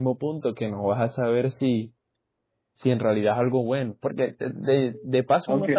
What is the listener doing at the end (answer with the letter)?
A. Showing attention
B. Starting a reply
B